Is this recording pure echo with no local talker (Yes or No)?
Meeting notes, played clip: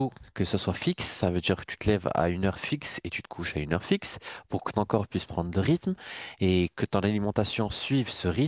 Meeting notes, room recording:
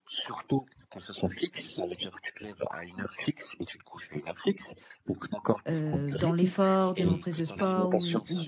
No